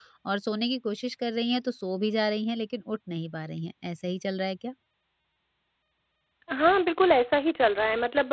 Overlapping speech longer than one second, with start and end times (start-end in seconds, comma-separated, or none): none